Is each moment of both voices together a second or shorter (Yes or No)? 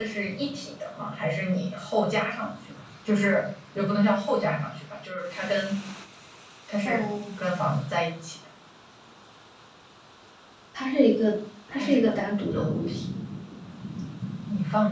No